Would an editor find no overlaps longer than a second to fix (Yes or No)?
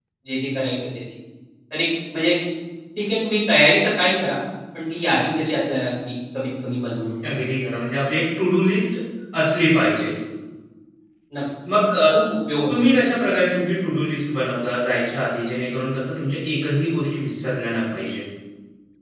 Yes